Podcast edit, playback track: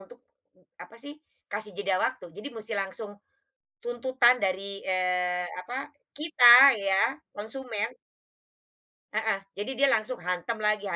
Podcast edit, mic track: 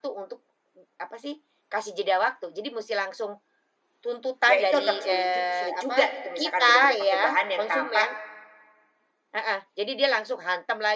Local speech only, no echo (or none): Ya itu agak suli jug sulit juga gitu misalkan benar-benar pakai bahan yang tanpa,